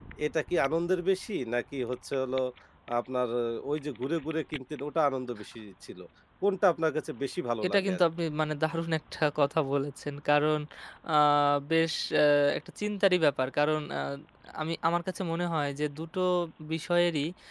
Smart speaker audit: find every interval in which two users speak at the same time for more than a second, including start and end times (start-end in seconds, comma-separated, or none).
none